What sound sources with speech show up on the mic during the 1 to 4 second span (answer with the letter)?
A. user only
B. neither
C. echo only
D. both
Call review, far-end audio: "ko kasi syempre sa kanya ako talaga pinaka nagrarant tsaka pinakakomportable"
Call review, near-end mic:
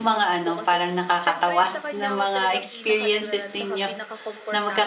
D